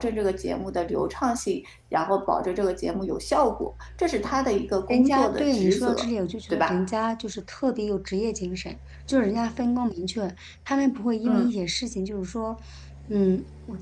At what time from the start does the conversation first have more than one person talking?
5 s

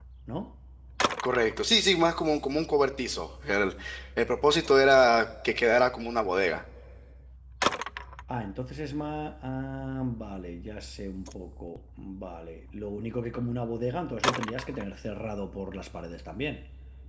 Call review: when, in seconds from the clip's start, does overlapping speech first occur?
none

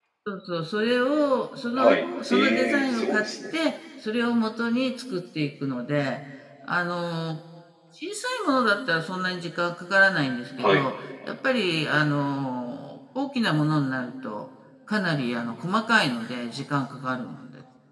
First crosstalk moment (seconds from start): 2 s

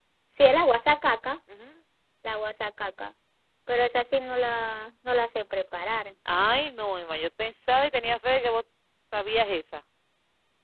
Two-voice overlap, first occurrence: none

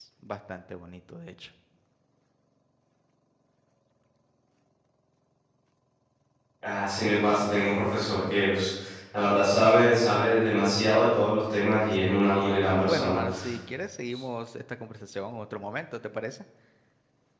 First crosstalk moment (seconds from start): 12 s

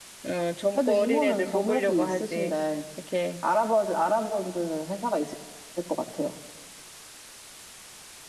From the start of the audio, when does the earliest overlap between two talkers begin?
1 s

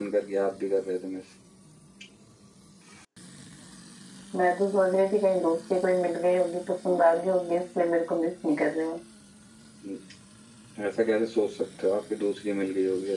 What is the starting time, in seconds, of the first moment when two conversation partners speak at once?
none

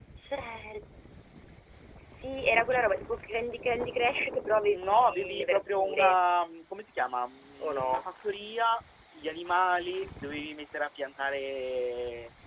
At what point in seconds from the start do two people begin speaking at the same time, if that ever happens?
5 s

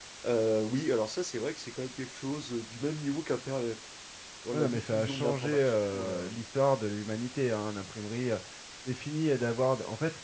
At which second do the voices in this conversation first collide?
5 s

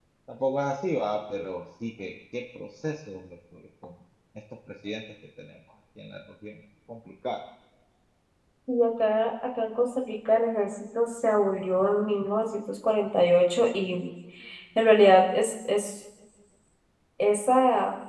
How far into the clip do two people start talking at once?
none

